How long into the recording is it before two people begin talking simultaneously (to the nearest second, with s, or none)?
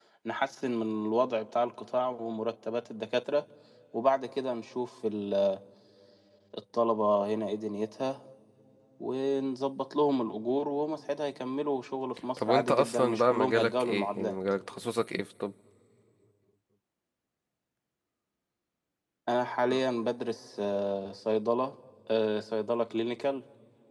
12 s